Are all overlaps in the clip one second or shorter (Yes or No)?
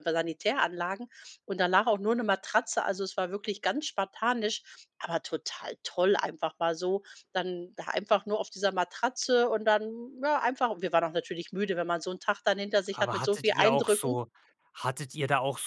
No